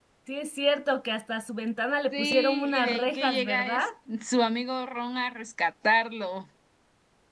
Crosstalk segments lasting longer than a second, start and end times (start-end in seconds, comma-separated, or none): 2.1-3.8